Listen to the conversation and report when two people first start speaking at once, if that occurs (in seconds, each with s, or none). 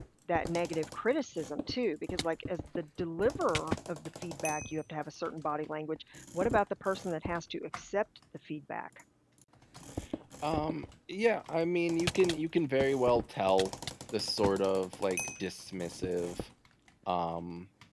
none